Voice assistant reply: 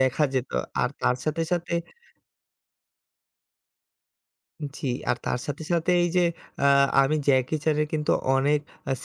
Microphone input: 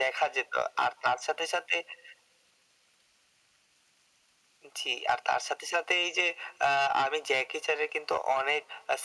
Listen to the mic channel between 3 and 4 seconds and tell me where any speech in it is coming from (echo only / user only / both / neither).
neither